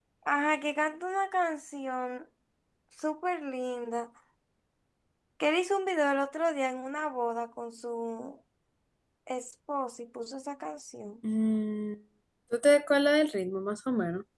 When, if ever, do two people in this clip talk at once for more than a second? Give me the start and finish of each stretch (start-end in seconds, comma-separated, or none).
none